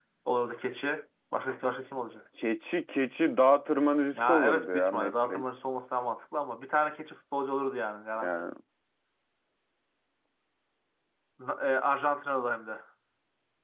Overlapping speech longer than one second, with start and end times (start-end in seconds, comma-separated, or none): 4.1-5.4